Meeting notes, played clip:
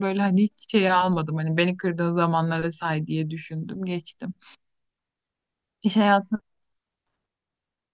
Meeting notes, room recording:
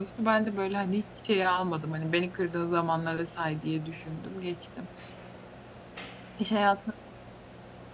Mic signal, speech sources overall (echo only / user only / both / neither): echo only